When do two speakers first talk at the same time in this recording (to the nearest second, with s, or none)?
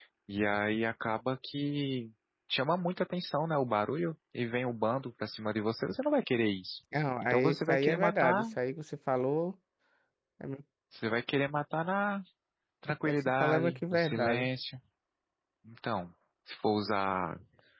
7 s